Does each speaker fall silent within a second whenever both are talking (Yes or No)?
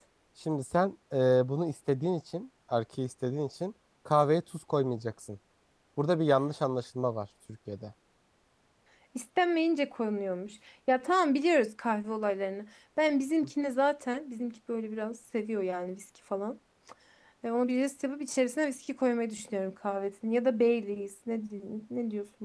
Yes